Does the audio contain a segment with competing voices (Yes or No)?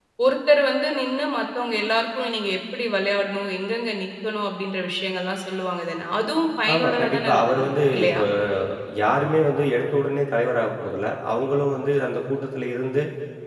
Yes